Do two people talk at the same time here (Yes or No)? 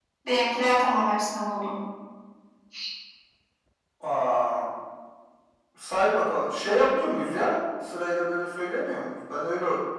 No